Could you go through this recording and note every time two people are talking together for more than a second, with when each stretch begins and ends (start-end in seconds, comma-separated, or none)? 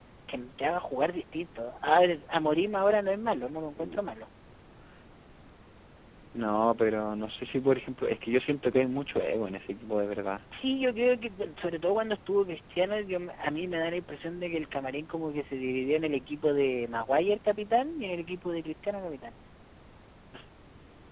none